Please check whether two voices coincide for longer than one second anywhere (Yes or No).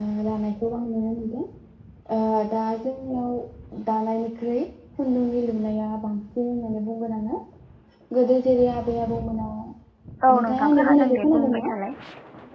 Yes